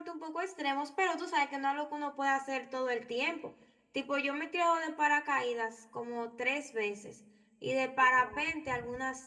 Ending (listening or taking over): listening